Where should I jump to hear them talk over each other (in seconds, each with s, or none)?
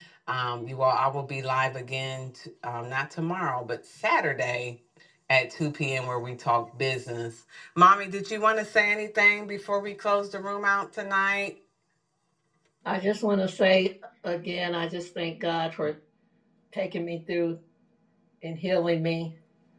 none